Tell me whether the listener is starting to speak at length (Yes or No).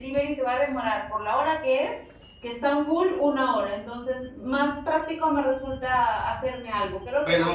Yes